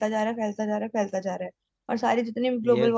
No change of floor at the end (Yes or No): Yes